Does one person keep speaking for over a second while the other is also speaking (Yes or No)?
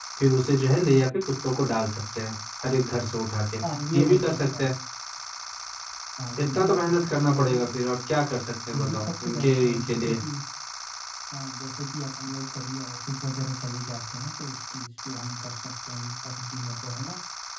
Yes